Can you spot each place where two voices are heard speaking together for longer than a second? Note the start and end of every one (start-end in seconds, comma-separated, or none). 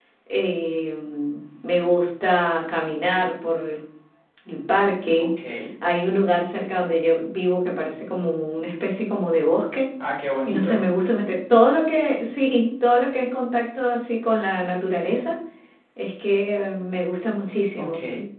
none